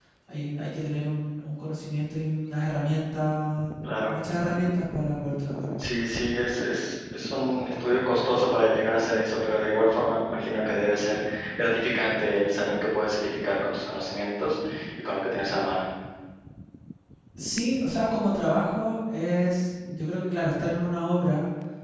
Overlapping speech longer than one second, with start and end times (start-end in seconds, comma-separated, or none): none